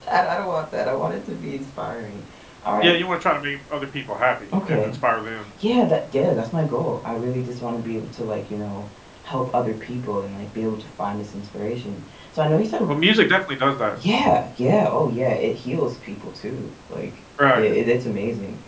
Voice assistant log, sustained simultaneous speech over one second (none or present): none